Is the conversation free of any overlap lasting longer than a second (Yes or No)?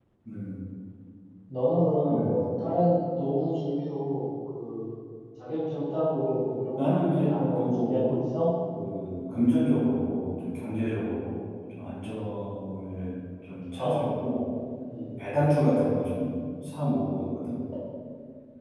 No